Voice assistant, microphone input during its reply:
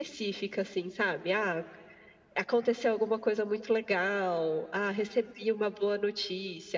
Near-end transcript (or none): none